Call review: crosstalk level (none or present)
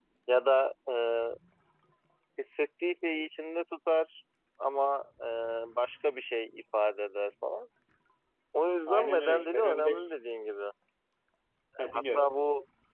present